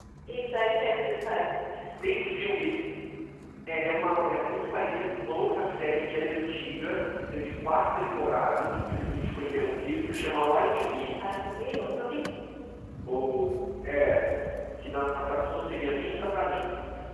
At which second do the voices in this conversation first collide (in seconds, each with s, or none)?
none